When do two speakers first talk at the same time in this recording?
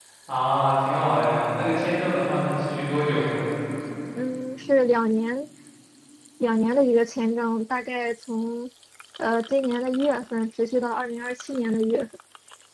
none

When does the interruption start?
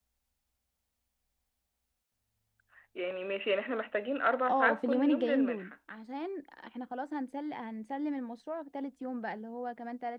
4.5 s

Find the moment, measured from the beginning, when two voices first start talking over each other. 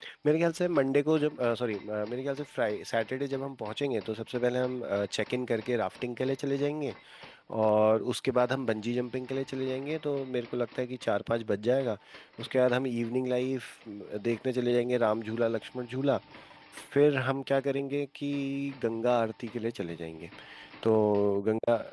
none

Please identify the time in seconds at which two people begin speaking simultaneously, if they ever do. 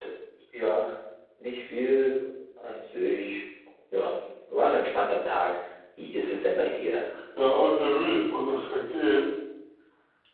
none

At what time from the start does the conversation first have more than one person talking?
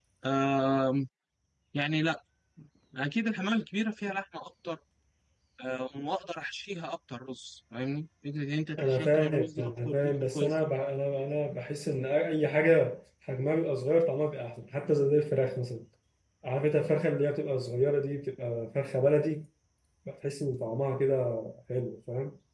8.8 s

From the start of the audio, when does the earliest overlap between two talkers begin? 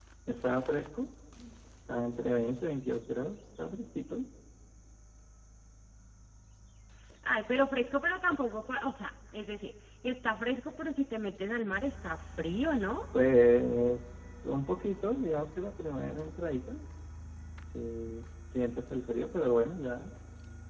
none

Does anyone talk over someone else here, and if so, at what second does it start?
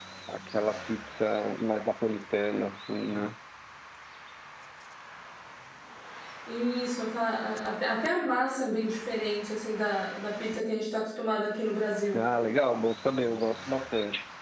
none

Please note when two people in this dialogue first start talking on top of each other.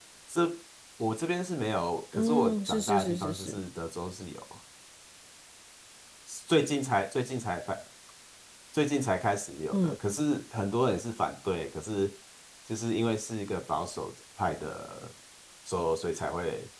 2.1 s

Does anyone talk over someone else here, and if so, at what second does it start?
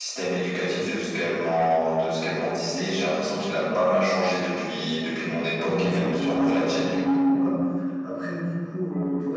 5.6 s

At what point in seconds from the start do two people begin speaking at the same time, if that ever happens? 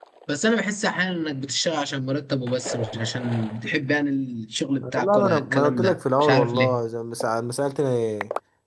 4.8 s

